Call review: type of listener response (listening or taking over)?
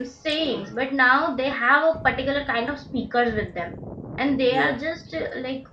listening